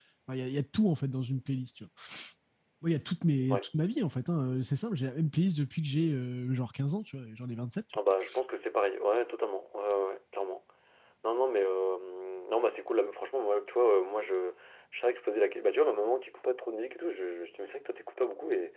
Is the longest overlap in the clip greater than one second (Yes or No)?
No